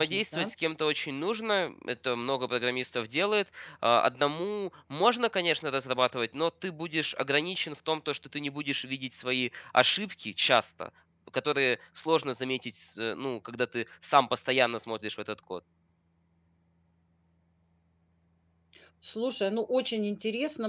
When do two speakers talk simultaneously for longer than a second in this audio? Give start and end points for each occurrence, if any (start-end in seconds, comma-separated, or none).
none